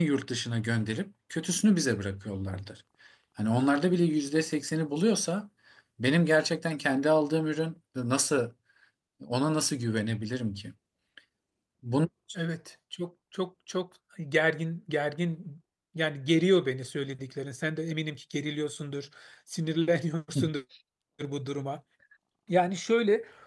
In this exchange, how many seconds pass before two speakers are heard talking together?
none

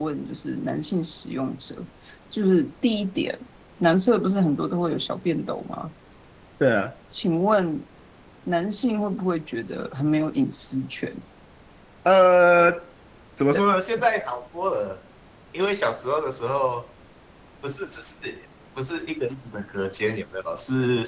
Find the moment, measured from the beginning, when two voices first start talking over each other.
none

